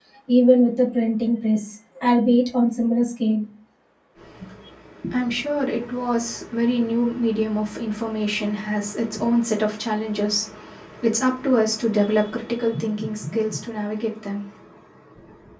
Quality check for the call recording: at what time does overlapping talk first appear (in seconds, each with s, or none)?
none